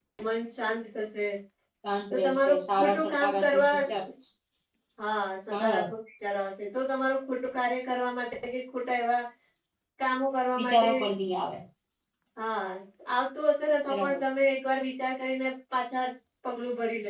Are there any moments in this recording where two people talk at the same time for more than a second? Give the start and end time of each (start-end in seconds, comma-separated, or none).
2.1-3.8